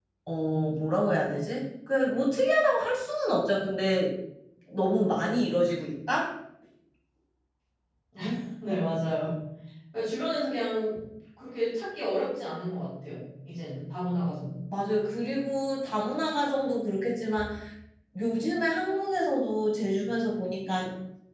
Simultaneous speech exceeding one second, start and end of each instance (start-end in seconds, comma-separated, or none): none